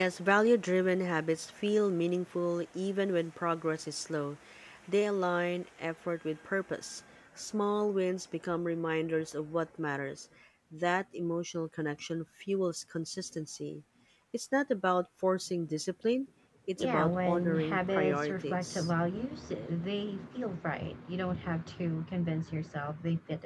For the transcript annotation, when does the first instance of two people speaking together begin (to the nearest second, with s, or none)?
17 s